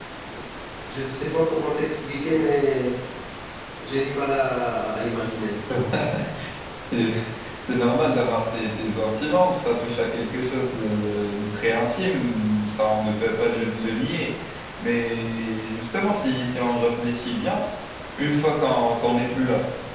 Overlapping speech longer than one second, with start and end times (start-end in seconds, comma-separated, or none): none